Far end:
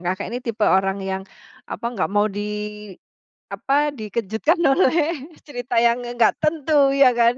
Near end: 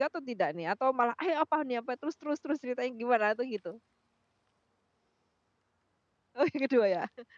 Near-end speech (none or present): present